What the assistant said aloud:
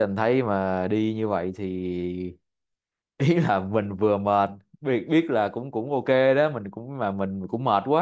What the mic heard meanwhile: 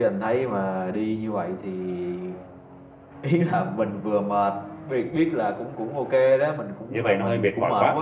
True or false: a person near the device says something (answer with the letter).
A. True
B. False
A